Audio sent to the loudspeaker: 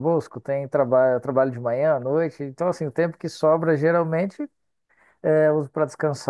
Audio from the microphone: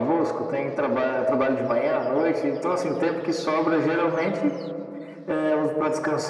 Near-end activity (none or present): none